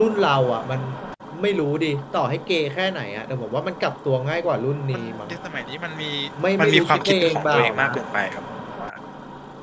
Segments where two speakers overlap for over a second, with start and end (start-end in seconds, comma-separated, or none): 6.6-7.9